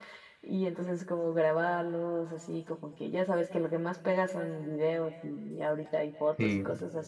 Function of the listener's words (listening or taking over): listening